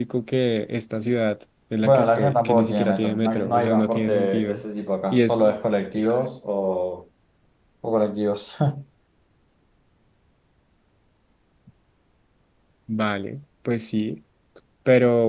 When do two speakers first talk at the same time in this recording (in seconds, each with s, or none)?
1.8 s